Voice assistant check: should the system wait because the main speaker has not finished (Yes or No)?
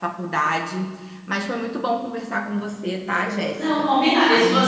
No